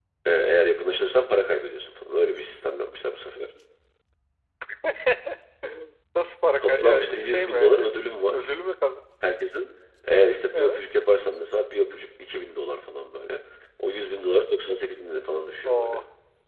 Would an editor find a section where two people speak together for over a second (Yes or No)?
Yes